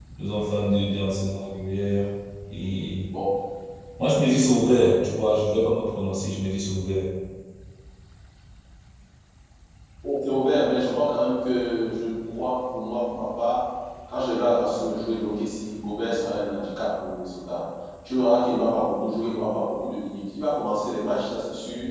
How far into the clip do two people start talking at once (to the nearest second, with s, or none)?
none